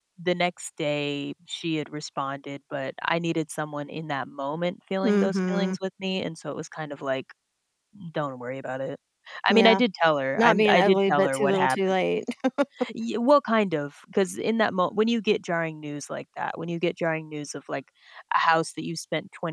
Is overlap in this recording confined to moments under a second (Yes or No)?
No